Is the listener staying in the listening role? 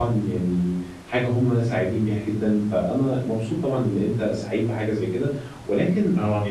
Yes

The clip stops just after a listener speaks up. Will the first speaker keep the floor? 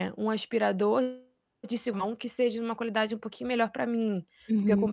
Yes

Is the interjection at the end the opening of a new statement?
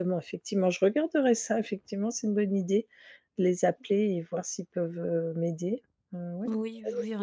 Yes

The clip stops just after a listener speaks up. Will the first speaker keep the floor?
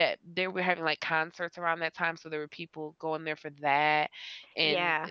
Yes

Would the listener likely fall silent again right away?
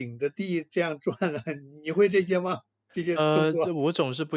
No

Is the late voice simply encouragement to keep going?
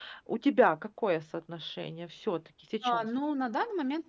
No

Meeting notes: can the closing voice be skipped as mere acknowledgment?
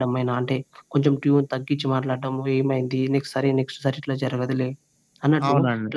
Yes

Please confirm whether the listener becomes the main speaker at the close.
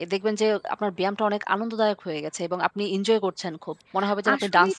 Yes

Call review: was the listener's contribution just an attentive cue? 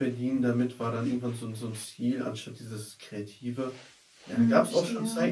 Yes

